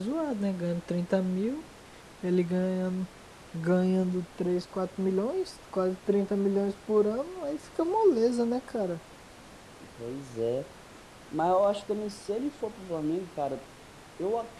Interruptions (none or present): none